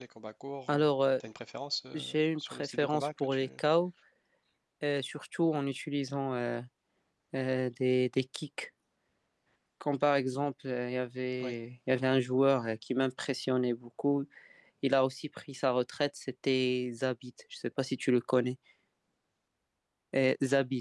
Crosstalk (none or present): present